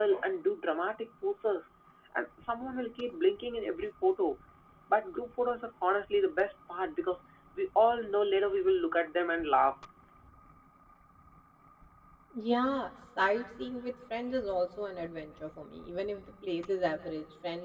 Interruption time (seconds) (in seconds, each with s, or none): none